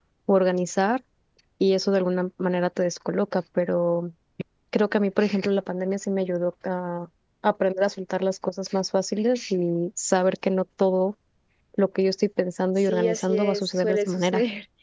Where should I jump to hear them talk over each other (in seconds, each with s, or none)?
12.8 s